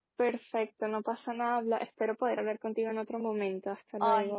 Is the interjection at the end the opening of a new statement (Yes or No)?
Yes